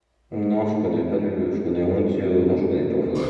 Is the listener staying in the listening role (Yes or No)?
No